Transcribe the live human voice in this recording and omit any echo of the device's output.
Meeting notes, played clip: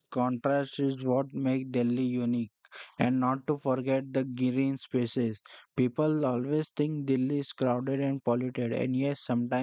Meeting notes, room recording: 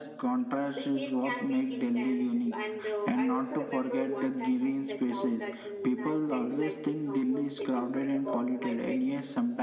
the heat can be intense and uh, i also remember one time i stepped out at noon and felt like the sun was setting right above my head

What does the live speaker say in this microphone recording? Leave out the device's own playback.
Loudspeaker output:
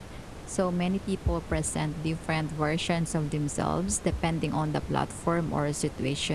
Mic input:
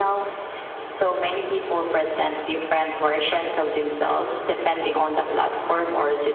none

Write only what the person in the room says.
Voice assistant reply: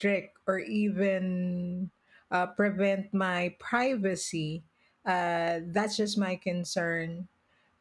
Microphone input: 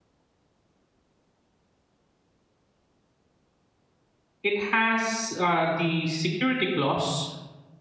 it has uh, the security clause

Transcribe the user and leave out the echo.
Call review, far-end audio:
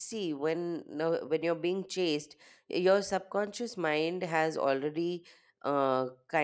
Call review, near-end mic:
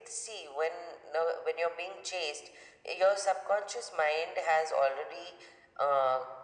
none

